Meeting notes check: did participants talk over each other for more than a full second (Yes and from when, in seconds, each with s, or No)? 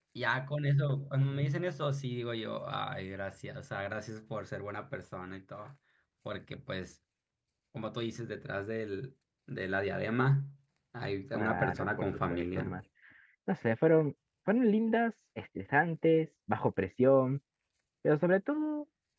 Yes, from 11.3 s